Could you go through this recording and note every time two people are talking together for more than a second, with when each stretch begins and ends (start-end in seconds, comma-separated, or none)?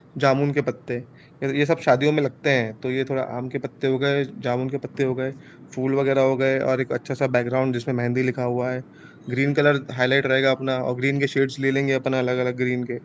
none